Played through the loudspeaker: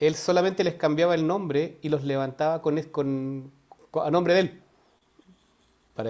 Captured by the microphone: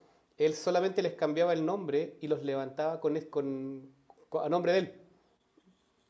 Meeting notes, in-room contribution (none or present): none